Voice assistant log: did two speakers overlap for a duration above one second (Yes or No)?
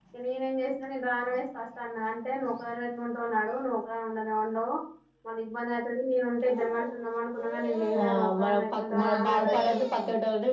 Yes